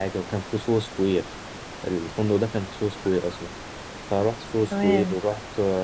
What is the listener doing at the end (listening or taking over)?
listening